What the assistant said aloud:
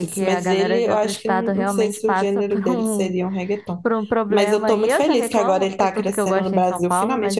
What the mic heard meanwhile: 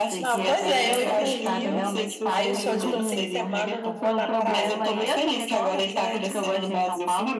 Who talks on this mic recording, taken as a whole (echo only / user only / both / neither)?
both